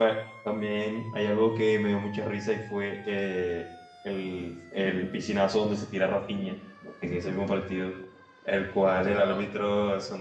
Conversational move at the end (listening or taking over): listening